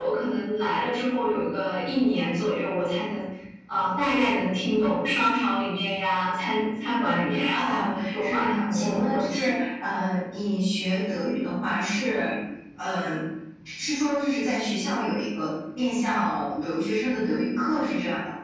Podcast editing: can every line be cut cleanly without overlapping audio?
No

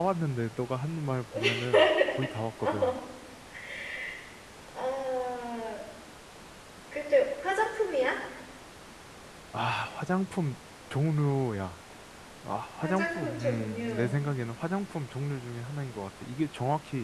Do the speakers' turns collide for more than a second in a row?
Yes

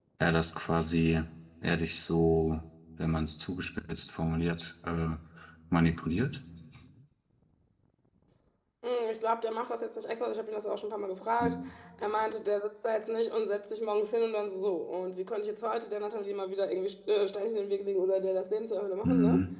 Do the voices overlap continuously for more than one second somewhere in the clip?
No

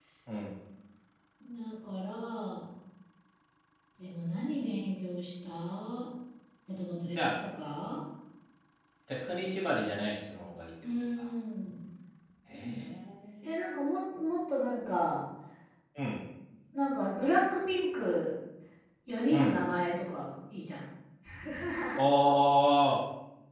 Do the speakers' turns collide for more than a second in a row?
No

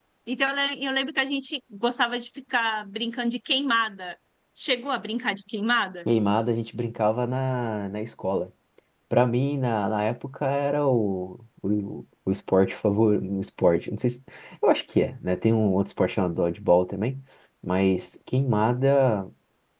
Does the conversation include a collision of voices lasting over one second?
No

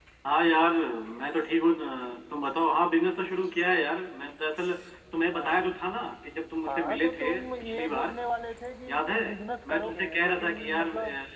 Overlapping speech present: Yes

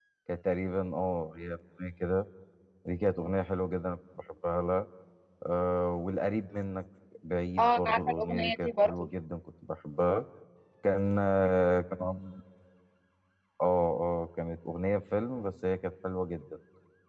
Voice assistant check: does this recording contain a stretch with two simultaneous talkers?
Yes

